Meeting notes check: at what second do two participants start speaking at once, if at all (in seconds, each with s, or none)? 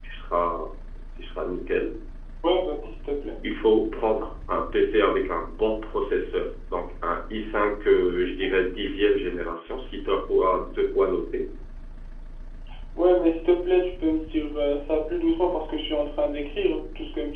none